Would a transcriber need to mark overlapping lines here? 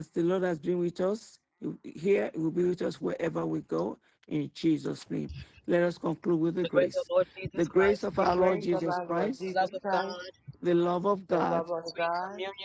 Yes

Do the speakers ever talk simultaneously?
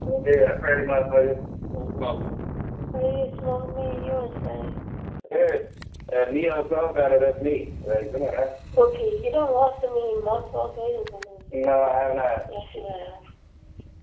No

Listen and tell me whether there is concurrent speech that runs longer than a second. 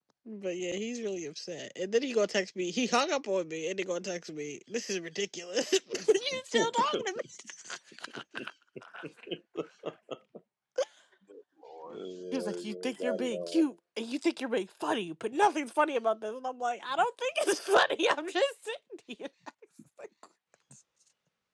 Yes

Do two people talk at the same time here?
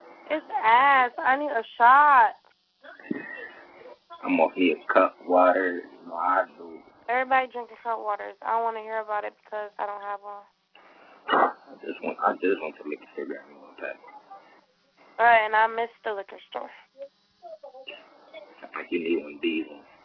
No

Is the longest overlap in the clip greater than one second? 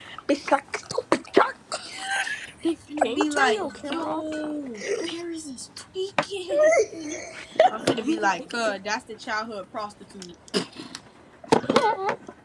Yes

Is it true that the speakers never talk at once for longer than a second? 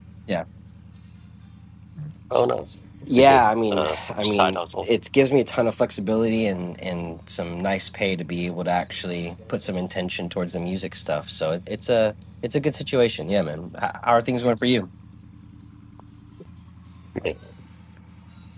No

